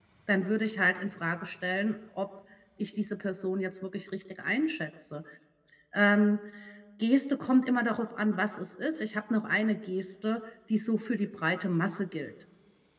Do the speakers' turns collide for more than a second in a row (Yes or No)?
No